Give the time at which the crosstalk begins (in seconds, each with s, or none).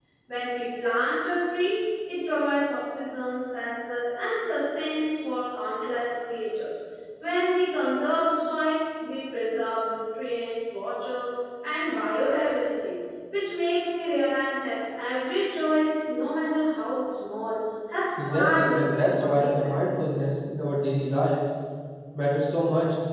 18.2 s